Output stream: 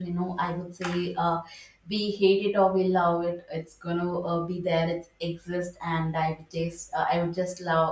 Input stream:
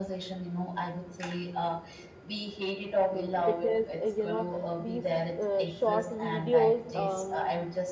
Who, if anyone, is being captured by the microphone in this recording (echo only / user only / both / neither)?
both